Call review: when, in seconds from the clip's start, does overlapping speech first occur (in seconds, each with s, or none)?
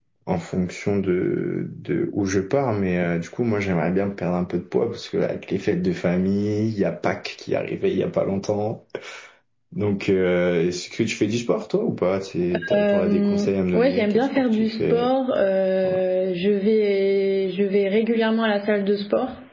12.5 s